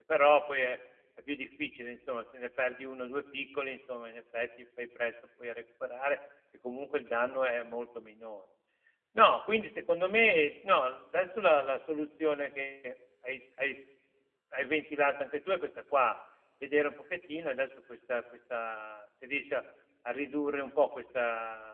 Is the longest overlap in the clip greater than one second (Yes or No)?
No